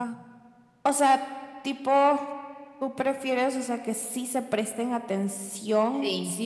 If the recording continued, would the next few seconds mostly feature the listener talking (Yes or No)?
No